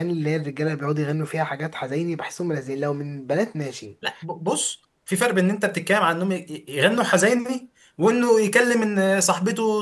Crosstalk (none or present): none